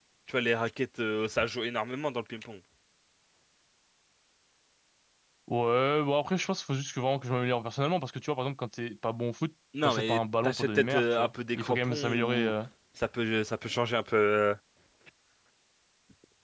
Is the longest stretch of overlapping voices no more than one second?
No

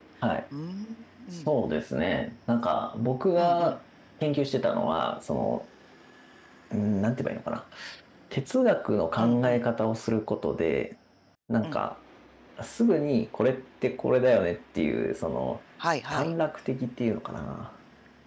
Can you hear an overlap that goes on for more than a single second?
No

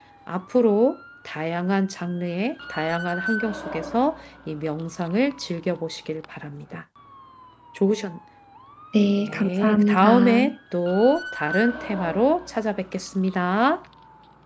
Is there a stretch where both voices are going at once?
Yes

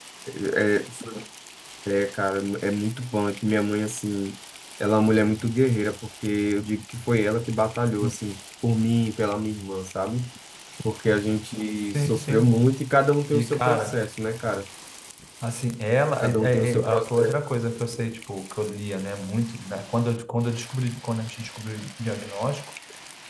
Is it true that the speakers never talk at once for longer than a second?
No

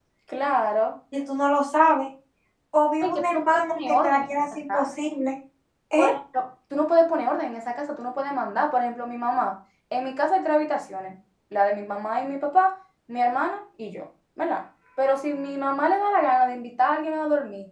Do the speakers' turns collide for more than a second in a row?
Yes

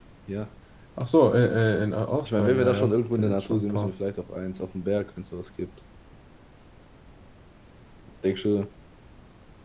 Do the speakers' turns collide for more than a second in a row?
Yes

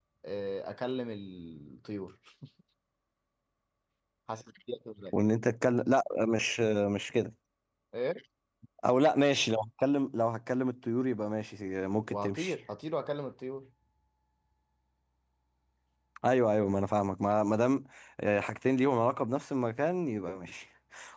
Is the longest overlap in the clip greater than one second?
No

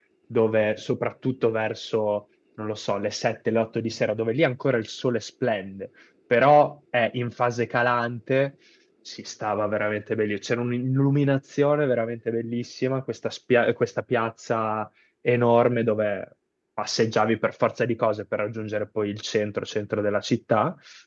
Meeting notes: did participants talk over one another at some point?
No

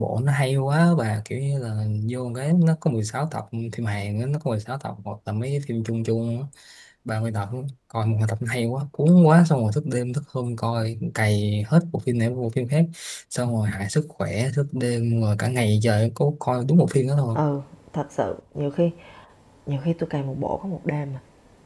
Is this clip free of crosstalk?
Yes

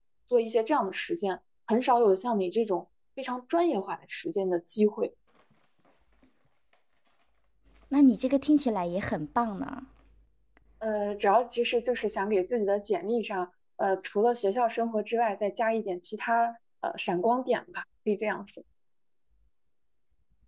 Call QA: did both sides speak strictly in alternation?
Yes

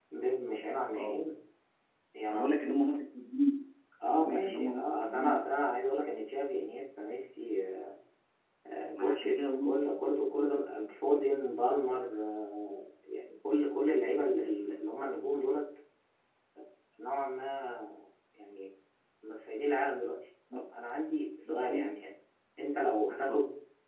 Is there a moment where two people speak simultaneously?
Yes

